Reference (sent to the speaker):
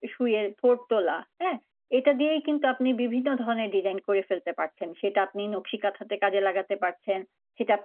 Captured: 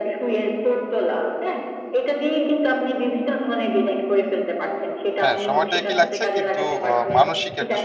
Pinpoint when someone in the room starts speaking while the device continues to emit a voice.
5.2 s

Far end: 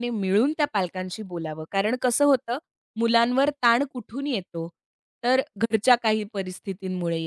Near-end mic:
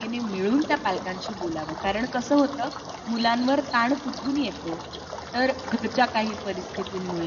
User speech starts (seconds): none

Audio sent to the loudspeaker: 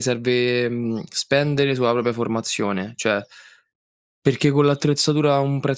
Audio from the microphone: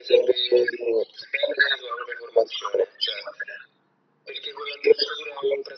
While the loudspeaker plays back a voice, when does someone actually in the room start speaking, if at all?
none

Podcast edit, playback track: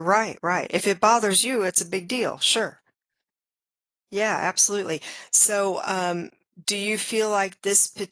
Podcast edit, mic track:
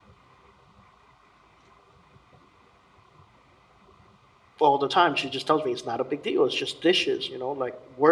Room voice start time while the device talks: 4.6 s

